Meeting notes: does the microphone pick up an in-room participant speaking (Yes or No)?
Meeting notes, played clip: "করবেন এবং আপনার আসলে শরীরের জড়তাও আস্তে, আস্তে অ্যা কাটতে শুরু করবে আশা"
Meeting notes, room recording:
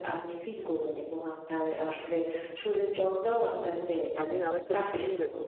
Yes